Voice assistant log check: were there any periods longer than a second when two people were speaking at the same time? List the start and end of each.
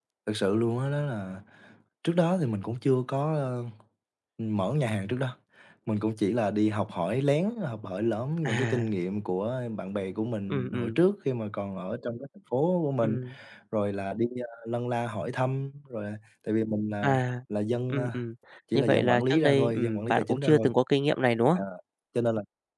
18.7-20.7

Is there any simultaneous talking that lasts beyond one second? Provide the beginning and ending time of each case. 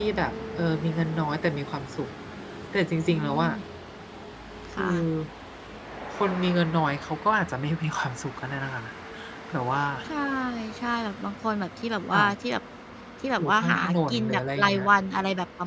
13.4-14.9

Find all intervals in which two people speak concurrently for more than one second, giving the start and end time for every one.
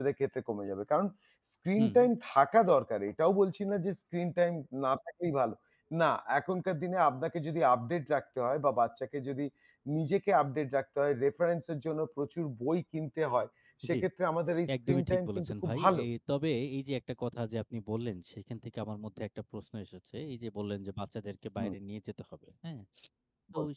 14.8-16.0

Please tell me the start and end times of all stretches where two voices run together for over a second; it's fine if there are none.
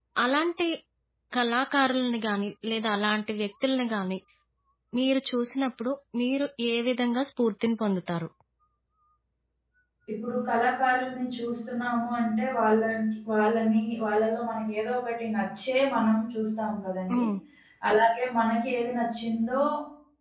none

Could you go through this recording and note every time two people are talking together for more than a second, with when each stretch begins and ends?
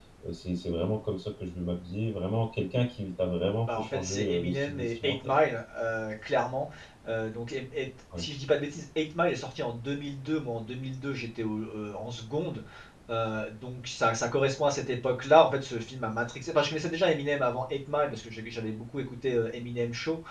3.7-5.3

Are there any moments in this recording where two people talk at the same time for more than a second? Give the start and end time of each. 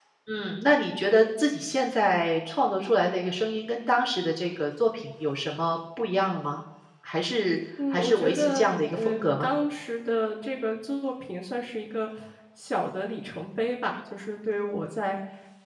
7.9-9.5

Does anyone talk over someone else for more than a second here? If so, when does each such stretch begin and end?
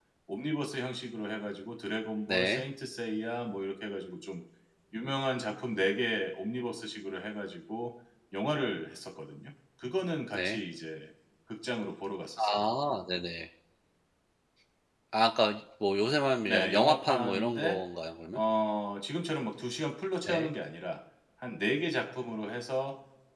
16.5-17.8

